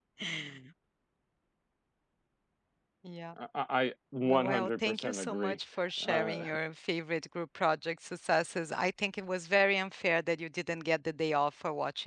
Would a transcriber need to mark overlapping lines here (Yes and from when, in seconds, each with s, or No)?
Yes, from 4.2 s